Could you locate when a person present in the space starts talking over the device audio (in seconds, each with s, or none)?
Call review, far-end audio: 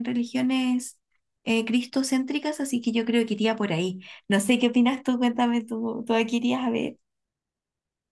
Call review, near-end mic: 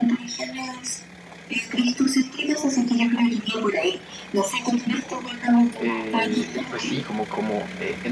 5.8 s